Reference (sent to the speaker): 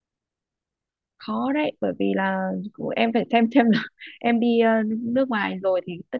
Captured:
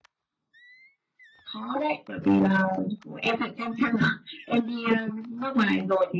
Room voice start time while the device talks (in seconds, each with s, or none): none